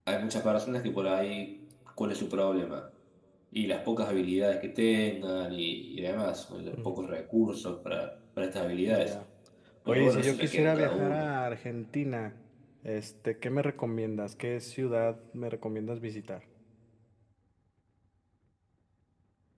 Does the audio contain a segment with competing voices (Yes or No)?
Yes